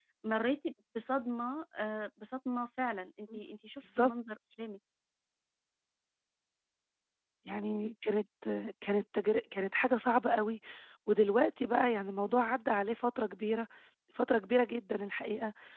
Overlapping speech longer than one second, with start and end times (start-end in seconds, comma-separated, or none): none